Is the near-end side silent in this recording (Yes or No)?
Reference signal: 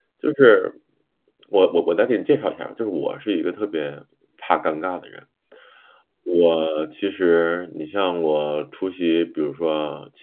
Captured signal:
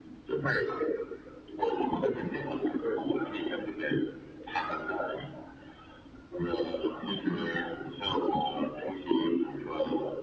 No